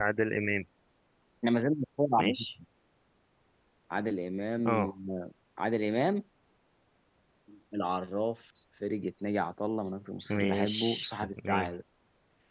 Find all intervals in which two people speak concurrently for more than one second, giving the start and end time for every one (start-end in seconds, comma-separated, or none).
10.3-11.7